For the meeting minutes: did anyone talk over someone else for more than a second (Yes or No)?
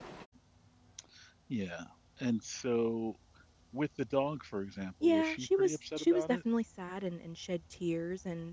Yes